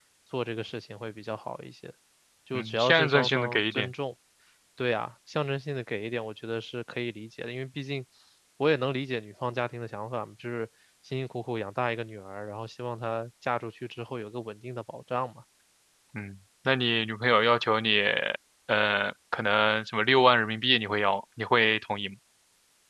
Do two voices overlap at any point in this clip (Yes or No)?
Yes